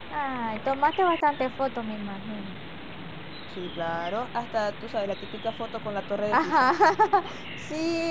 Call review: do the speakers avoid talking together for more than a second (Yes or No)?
Yes